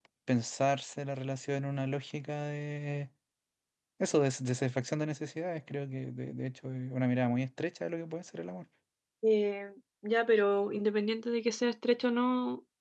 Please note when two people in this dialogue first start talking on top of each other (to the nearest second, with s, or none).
none